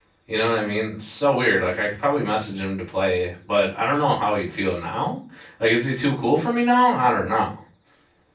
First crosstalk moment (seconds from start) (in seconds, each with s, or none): none